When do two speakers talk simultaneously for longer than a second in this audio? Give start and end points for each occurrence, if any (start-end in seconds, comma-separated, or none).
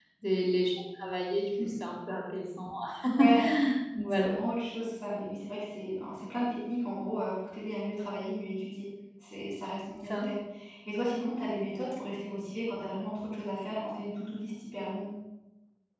none